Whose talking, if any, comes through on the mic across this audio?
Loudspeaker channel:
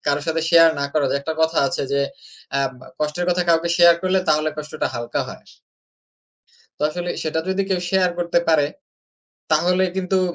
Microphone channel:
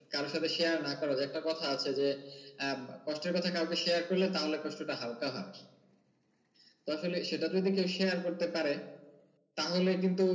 echo only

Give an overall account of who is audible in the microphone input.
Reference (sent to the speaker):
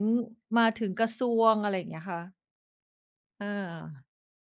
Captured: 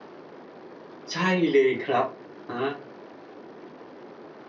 user only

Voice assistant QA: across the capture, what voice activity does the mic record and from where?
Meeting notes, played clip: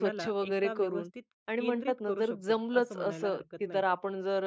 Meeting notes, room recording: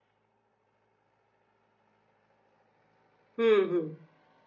user only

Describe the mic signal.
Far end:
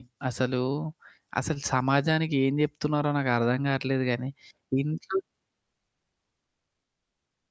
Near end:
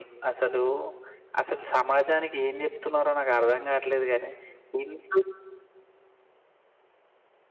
echo only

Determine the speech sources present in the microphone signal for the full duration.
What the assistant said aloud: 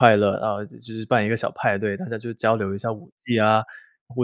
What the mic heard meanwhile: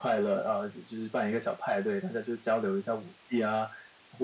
echo only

